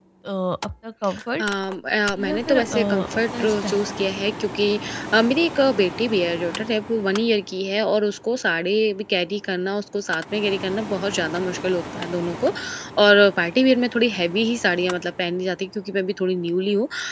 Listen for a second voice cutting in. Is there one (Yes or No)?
Yes